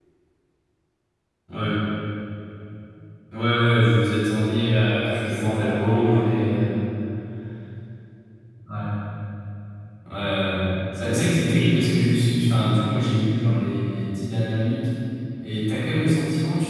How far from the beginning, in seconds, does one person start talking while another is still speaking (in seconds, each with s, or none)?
5.1 s